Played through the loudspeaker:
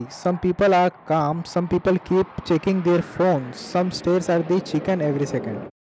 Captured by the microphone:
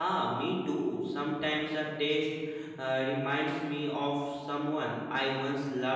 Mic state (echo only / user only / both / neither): user only